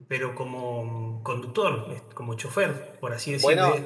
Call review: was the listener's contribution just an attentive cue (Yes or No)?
No